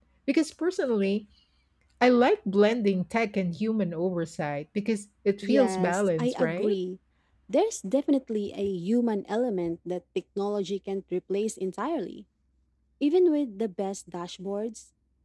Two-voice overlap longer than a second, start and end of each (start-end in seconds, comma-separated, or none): 5.4-6.8